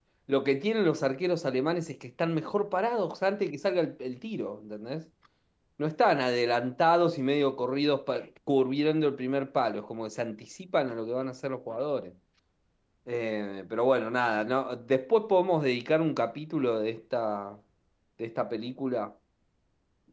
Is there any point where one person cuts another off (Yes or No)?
No